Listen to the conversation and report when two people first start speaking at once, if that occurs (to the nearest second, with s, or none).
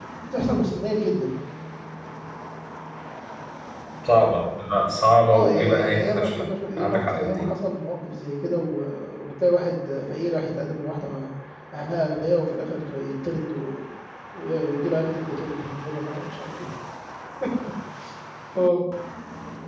5 s